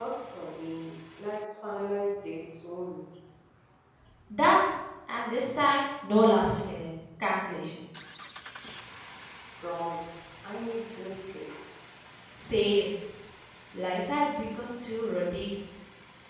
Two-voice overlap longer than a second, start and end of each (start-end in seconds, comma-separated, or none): none